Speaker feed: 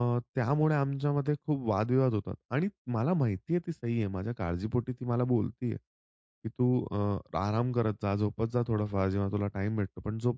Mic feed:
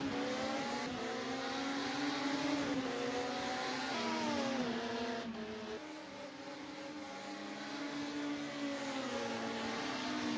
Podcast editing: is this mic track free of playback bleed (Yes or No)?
Yes